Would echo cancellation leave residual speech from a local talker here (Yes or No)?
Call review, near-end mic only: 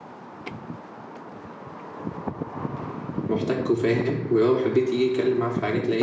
Yes